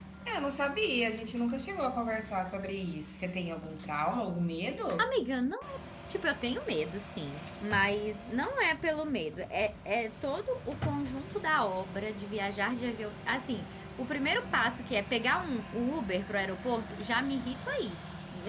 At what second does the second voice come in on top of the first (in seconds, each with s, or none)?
none